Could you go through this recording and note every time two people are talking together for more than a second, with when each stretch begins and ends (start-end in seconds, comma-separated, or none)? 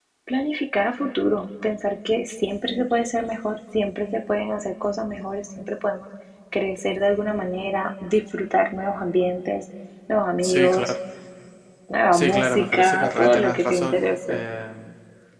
12.1-14.4